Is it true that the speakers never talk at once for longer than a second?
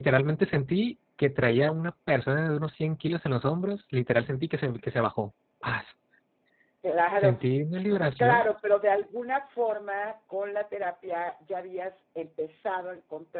Yes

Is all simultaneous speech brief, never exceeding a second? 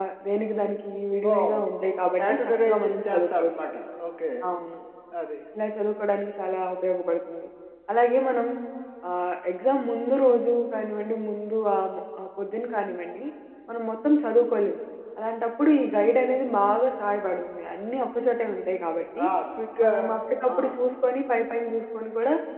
No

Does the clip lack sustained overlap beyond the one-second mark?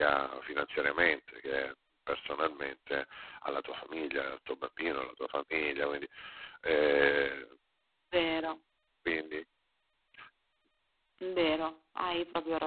Yes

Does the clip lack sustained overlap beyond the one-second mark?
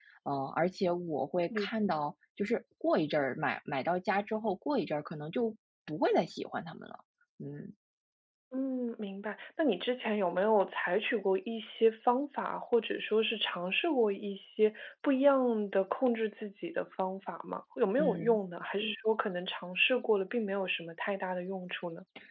Yes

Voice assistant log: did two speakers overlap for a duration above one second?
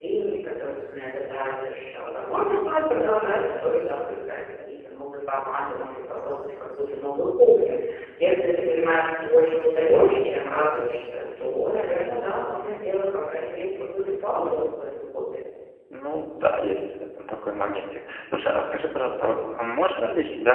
No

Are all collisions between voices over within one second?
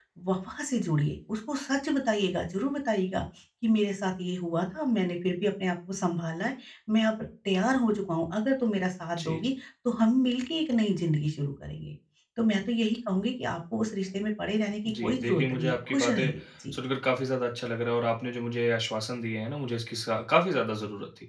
No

